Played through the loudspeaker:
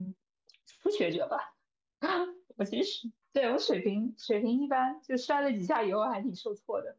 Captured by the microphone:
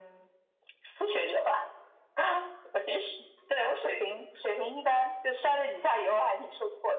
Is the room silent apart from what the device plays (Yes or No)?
Yes